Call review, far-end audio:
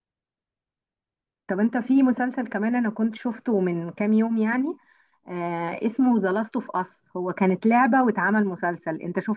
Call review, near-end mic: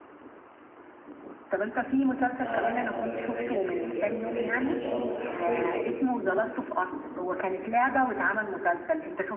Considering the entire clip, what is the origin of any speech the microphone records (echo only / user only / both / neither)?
both